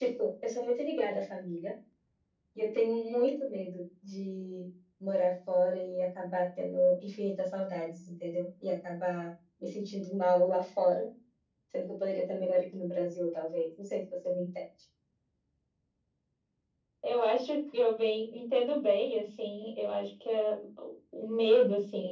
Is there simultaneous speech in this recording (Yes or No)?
No